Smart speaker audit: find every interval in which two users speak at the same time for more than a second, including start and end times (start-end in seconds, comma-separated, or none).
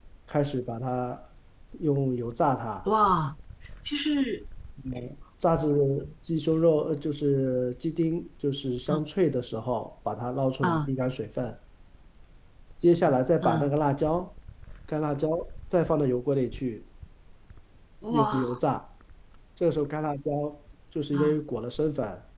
none